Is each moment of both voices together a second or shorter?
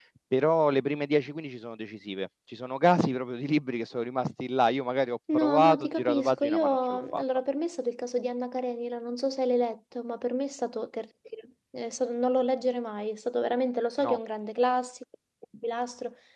No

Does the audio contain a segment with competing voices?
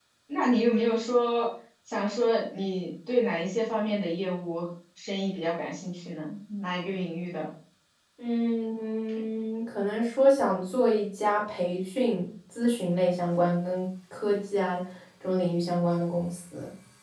No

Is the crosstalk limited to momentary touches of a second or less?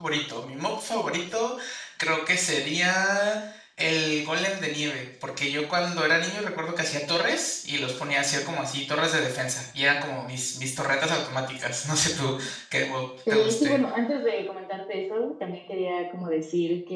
Yes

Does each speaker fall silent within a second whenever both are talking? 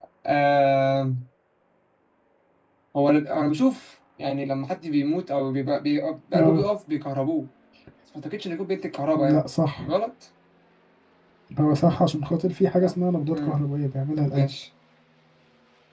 Yes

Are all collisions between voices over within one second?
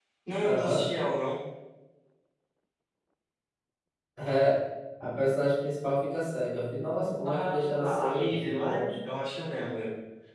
No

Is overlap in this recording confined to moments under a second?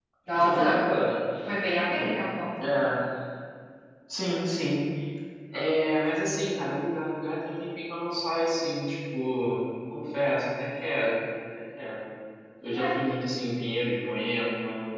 Yes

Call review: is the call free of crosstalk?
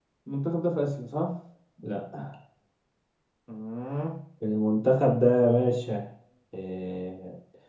Yes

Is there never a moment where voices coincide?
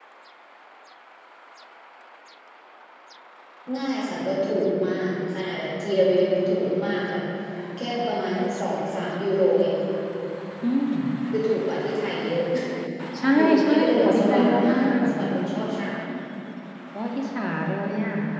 No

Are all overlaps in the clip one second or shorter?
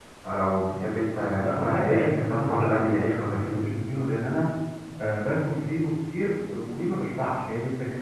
No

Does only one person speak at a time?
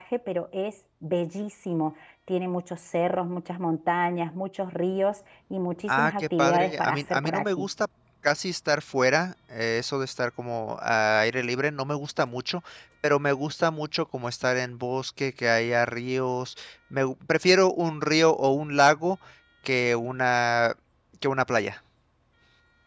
No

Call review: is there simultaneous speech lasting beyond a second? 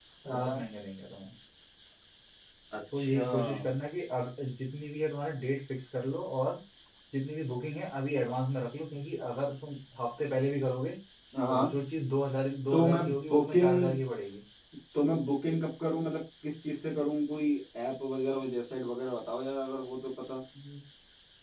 Yes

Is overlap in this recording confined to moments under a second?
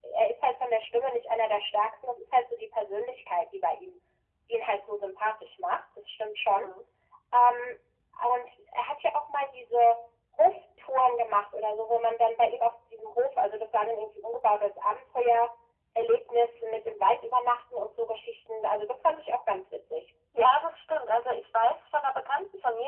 Yes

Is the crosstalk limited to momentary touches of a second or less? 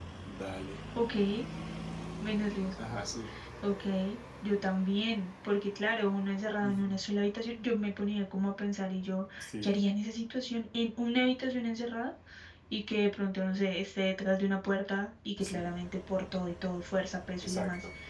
Yes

